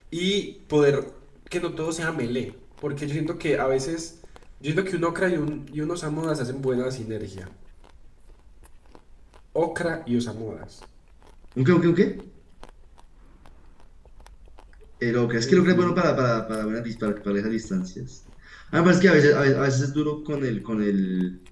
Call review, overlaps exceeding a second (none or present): none